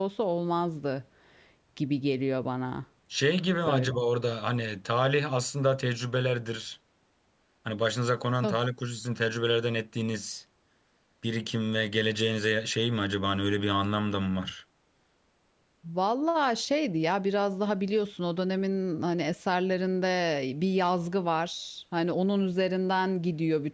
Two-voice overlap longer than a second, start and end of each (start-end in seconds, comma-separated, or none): none